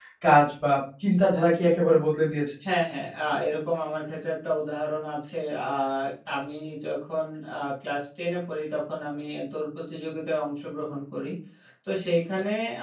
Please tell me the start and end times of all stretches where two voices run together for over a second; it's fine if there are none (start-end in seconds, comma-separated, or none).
none